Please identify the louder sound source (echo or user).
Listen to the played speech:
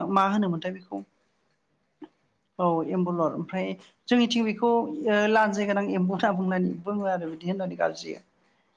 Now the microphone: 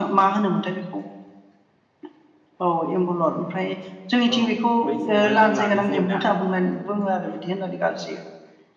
echo